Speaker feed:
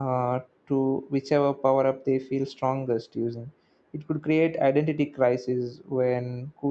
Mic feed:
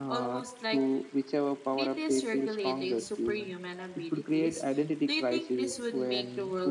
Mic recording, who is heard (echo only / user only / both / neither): both